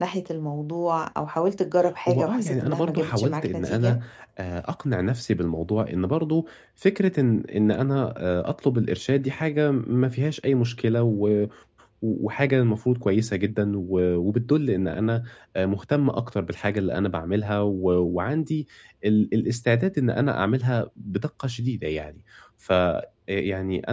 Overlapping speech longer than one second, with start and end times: 2.1-4.0

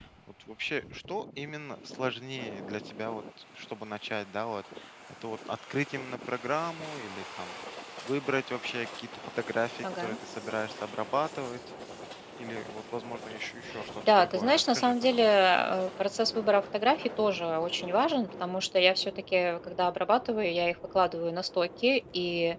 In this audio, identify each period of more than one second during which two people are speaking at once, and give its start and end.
14.0-15.3

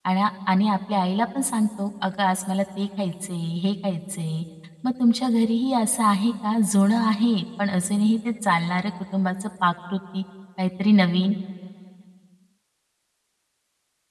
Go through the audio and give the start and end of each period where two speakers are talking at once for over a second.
none

